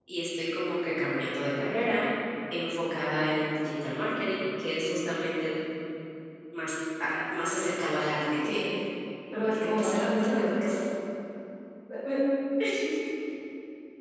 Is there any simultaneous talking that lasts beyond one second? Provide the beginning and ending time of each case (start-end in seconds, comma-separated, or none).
9.4-10.8